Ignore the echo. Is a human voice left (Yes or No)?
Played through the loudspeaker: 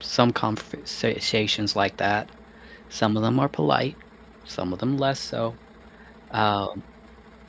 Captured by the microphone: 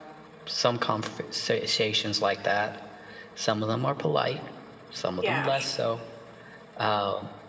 Yes